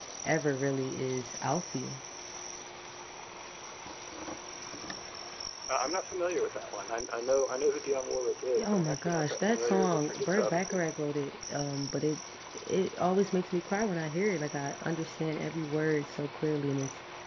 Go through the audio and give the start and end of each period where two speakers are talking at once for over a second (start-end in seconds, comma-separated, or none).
8.6-10.8